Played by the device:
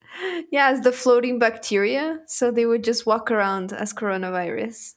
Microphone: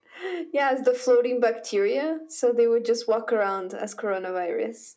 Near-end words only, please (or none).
none